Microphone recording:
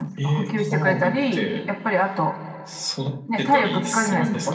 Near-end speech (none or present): present